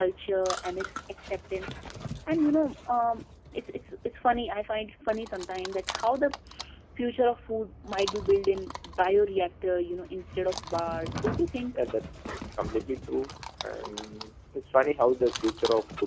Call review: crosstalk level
none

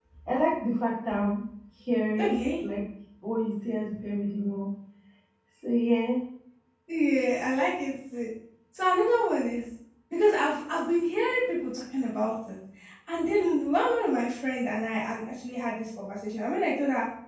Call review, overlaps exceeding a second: none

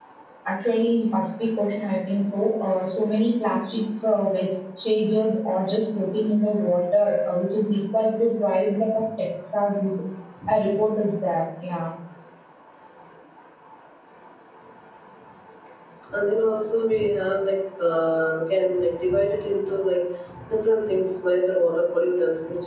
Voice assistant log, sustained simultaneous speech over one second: none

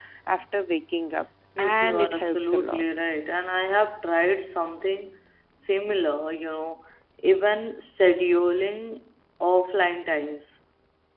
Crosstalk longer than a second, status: present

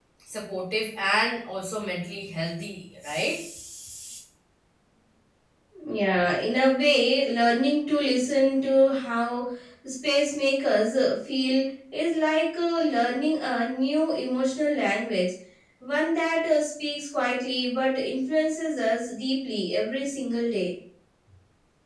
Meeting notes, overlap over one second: none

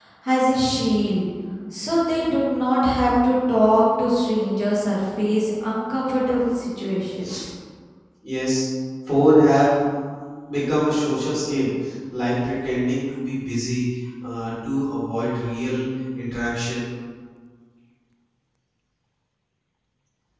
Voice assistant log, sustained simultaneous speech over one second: none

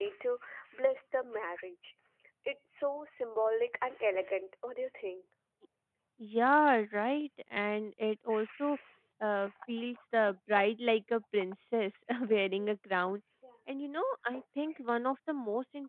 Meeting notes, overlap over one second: none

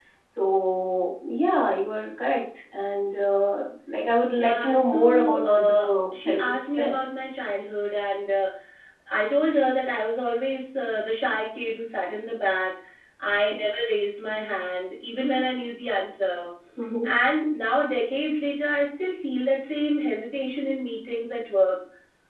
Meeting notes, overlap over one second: present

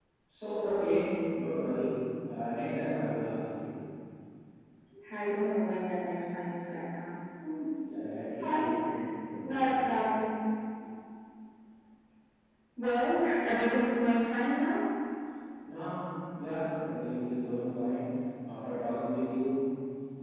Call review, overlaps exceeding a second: none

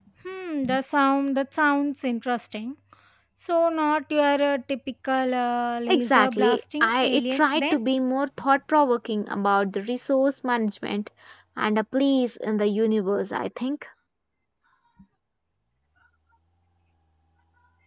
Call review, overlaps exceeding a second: present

